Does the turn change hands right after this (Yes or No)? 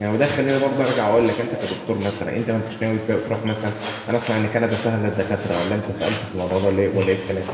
Yes